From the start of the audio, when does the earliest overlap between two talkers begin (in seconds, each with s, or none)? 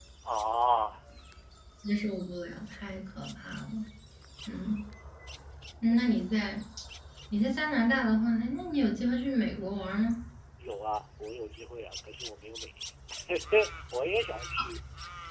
none